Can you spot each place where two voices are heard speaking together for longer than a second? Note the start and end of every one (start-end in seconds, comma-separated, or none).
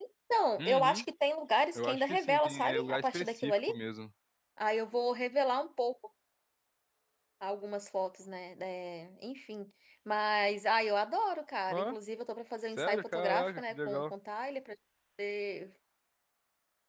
1.8-3.7, 12.8-14.1